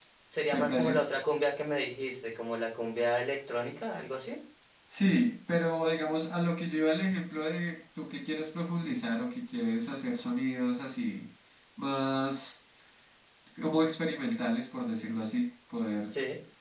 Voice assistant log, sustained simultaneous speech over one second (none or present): none